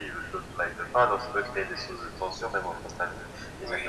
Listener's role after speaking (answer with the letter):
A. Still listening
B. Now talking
A